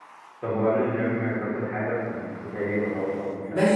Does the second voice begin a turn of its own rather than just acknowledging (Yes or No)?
Yes